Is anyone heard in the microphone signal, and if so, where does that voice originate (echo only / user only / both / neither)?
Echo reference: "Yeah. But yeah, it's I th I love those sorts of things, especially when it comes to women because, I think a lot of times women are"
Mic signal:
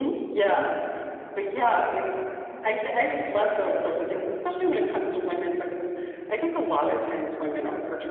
echo only